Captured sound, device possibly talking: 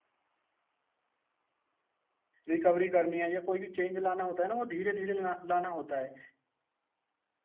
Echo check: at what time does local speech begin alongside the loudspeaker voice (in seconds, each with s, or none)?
2.5 s